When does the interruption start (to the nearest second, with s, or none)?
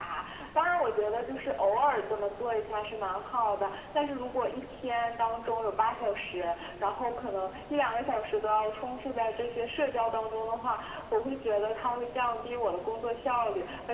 none